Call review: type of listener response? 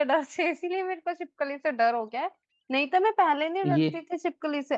listening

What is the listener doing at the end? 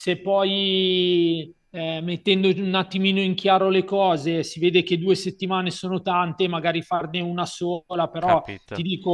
listening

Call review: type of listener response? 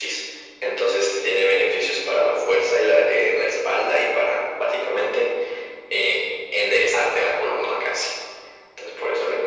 taking over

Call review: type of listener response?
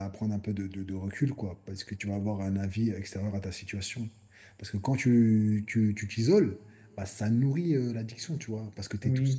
taking over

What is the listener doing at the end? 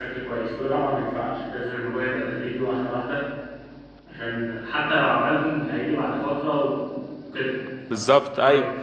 taking over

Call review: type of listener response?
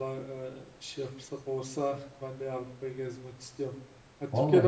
listening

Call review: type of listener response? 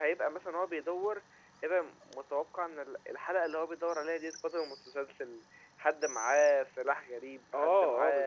taking over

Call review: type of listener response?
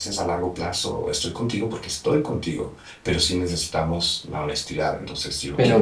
taking over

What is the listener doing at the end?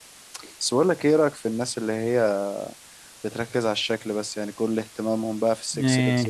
listening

